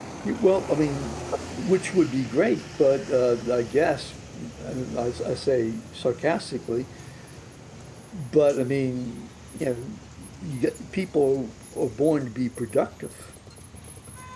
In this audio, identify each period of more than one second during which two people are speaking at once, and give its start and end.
none

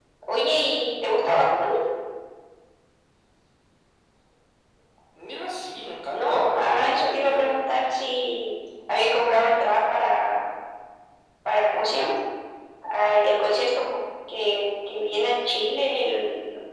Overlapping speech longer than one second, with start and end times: 6.1-7.5

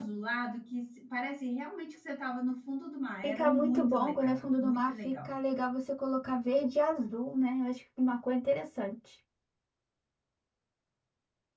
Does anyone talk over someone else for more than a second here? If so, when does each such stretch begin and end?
3.2-5.4

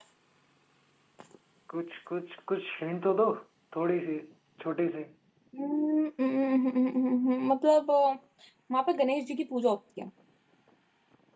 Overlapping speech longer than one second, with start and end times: none

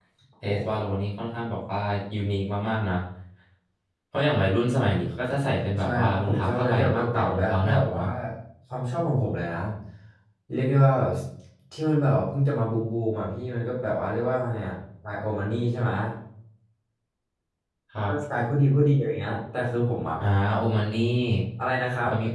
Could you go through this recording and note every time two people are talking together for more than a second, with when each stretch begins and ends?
5.8-8.0

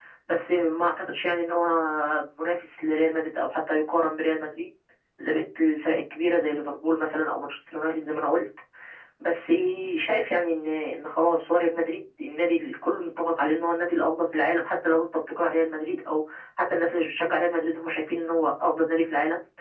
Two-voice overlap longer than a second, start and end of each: none

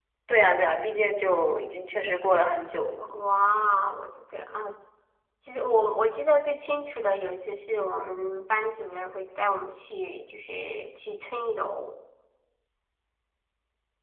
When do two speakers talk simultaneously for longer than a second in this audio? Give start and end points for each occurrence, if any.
none

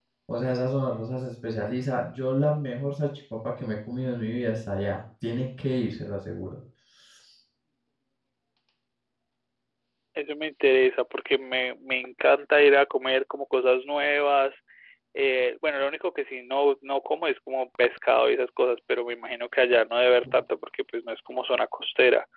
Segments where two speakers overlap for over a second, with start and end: none

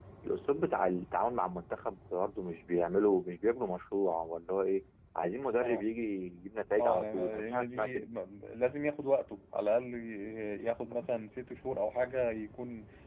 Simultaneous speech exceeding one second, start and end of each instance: 6.8-8.0

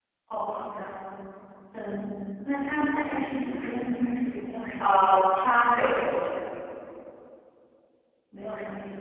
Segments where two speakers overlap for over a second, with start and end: none

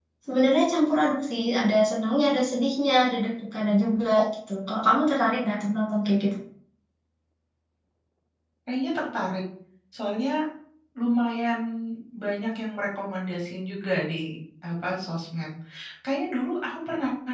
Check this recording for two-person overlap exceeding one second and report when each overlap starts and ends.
none

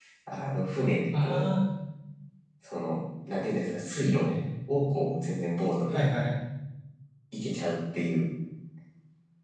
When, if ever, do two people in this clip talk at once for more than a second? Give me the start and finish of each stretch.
none

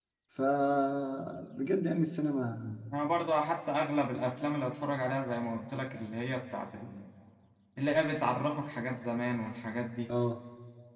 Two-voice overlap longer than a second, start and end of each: none

